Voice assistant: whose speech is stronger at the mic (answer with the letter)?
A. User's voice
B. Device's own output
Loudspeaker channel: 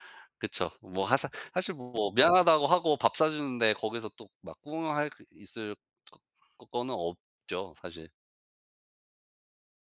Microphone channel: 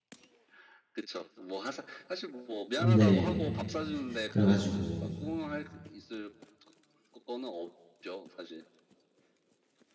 A